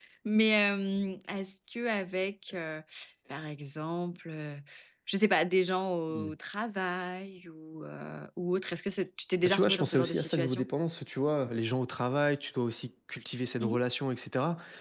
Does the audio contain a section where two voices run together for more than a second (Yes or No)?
Yes